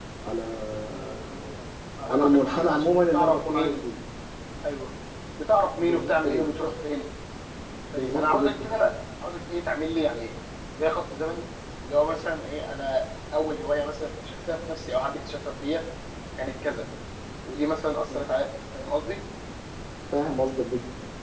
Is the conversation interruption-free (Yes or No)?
No